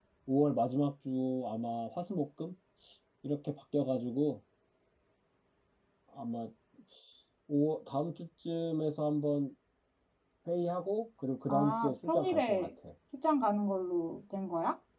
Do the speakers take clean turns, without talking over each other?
No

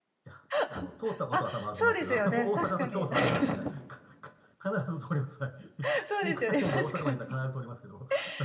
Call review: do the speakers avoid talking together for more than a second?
No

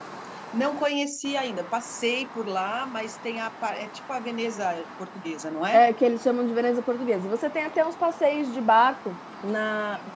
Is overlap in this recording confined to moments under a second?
Yes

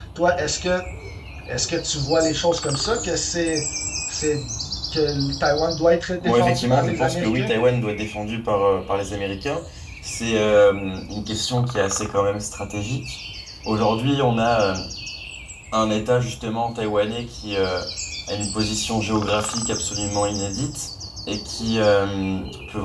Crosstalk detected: Yes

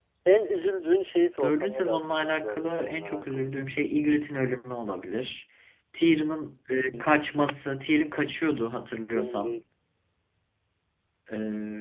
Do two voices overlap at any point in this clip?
Yes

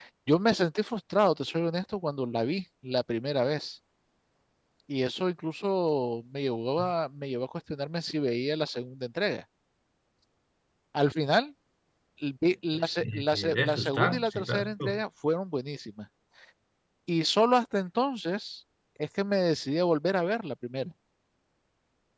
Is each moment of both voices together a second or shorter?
No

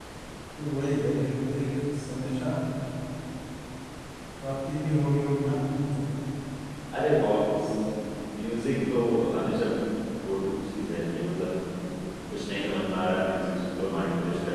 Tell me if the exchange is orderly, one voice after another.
Yes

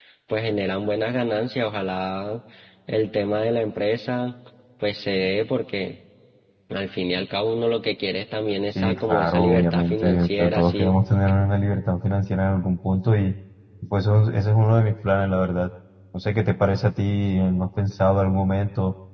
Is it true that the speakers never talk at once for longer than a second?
No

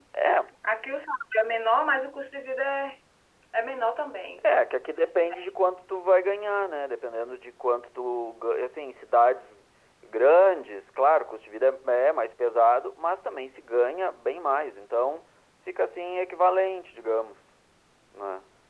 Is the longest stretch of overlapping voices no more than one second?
Yes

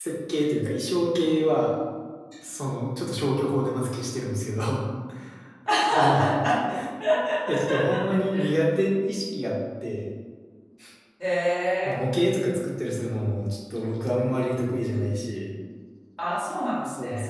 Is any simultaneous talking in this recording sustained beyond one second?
No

